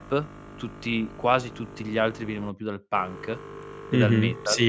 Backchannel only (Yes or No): No